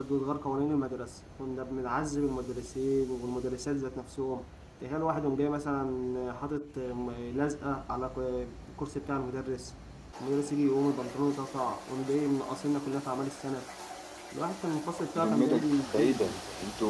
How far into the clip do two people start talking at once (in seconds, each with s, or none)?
15.2 s